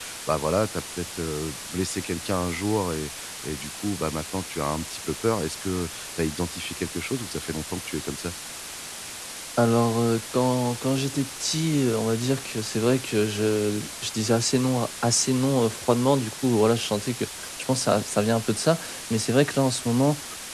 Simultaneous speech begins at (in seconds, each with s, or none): none